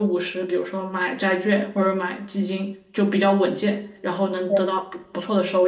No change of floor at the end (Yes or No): Yes